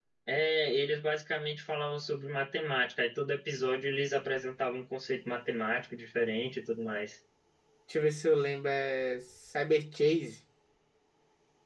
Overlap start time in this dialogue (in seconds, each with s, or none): none